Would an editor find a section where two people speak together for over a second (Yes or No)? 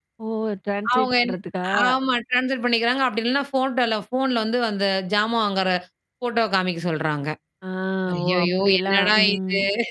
Yes